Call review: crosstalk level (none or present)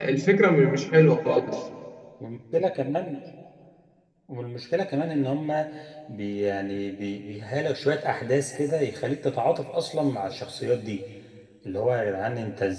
none